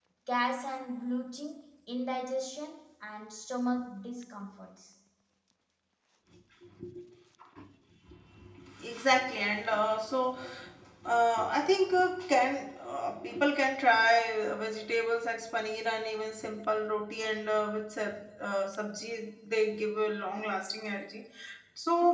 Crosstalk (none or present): none